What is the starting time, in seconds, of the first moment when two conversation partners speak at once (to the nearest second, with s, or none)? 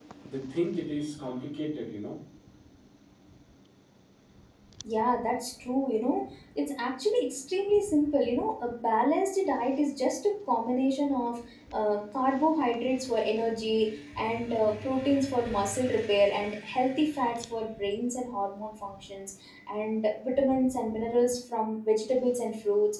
none